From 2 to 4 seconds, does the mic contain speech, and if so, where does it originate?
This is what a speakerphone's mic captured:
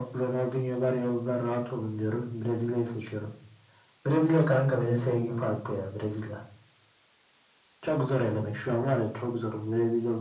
echo only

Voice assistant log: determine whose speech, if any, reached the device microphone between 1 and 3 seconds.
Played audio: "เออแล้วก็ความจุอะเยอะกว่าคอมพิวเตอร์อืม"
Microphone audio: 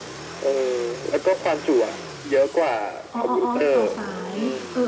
echo only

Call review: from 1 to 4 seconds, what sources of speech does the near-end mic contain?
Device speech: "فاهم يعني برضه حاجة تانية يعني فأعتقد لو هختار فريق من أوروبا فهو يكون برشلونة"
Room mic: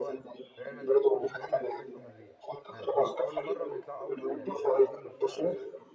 both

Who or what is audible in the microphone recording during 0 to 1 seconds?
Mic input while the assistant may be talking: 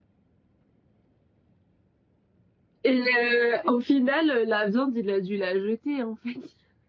neither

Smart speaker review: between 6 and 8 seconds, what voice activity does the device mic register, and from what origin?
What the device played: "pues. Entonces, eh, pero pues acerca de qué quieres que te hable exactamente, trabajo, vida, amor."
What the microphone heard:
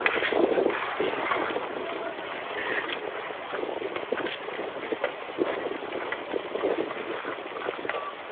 neither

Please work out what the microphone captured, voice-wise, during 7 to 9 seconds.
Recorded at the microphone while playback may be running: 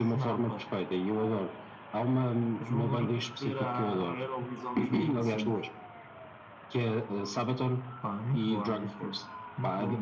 echo only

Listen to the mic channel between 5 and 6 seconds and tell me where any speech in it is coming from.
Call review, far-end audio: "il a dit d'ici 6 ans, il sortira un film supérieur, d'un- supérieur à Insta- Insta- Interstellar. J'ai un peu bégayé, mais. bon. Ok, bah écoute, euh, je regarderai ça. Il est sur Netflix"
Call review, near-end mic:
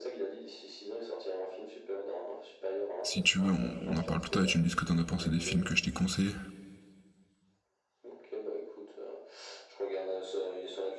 both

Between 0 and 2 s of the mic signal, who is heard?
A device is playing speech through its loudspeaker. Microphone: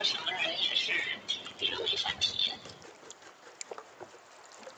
echo only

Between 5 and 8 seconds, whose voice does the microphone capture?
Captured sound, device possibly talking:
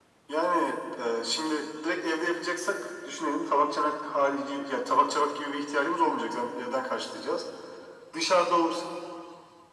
echo only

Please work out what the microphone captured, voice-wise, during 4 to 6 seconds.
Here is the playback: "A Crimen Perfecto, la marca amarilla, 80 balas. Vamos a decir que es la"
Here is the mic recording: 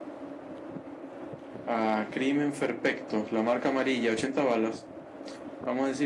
echo only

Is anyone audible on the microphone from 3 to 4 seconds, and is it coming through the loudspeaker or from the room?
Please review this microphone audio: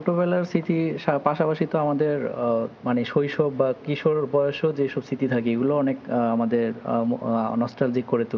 echo only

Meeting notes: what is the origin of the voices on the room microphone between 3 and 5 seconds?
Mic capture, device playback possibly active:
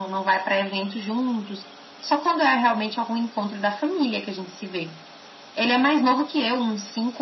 echo only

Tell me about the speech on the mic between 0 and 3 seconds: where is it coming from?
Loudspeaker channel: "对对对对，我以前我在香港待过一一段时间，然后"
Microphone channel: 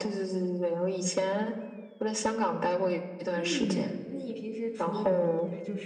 echo only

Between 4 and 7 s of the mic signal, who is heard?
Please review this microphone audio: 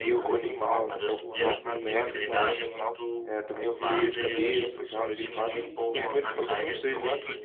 both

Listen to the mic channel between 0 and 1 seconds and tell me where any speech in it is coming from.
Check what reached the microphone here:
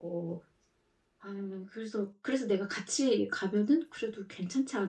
echo only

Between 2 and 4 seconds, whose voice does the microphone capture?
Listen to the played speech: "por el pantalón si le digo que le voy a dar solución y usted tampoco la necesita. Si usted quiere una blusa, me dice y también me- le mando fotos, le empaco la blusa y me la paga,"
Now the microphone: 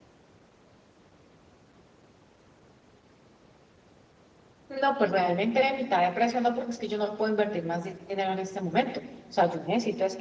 neither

